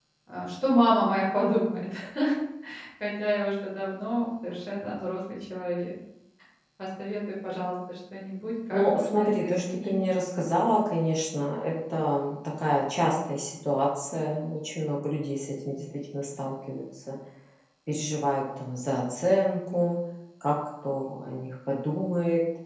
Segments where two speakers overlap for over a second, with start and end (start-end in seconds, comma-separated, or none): 8.7-10.0